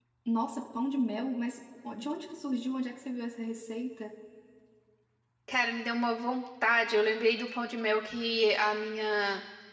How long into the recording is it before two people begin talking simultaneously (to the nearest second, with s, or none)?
none